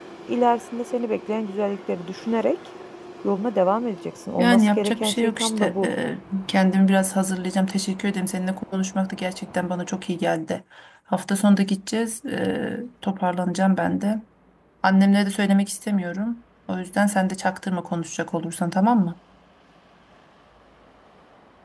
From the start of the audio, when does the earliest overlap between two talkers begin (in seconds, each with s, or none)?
4.4 s